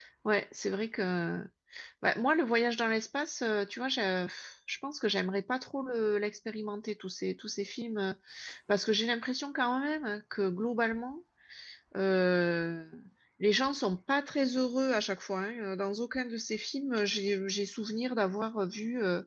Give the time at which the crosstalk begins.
none

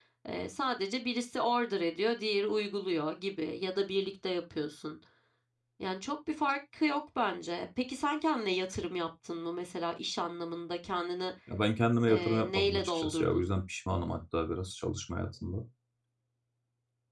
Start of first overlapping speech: 12.1 s

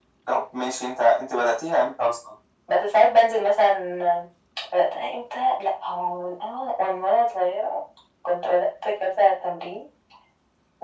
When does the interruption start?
none

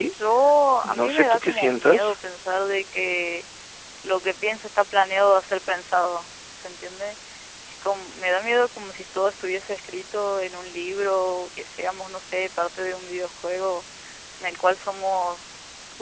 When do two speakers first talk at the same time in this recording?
0.8 s

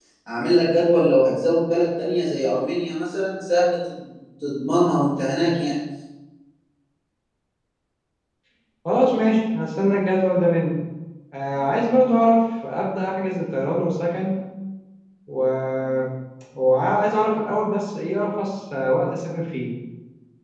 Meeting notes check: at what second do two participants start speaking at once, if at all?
none

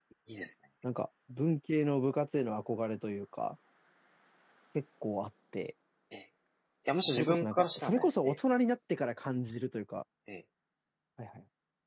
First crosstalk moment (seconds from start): 7.2 s

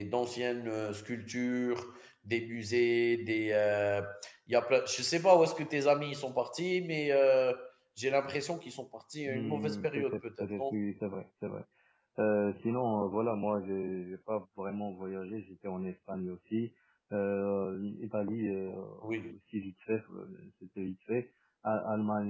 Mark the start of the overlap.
9.3 s

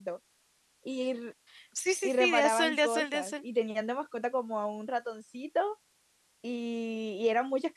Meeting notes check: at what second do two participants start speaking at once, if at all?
2.0 s

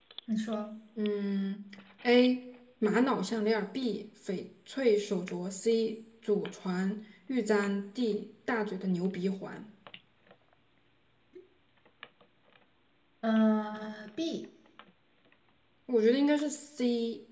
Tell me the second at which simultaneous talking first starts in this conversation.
none

